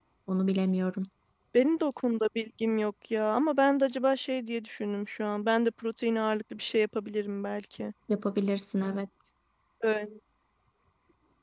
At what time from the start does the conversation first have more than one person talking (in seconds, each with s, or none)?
none